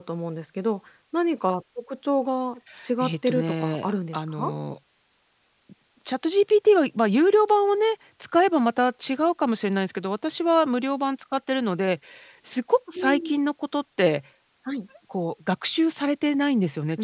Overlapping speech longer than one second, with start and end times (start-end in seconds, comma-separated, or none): 3.0-4.5